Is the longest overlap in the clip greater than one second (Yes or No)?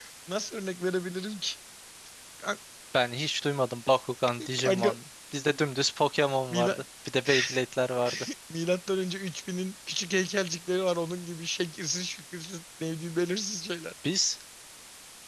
No